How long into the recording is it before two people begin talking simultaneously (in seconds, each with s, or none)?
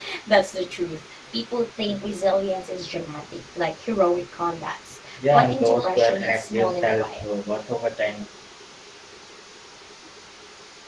5.2 s